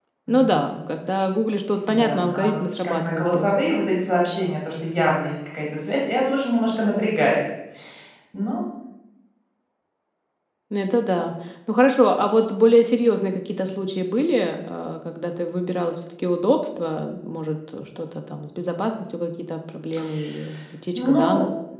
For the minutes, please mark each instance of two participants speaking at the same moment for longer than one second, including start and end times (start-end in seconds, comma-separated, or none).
1.9-3.5